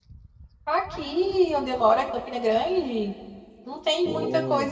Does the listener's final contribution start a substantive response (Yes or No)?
No